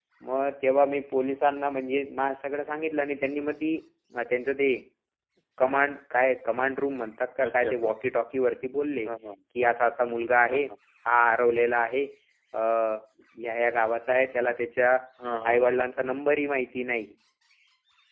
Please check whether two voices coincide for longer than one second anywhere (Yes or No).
No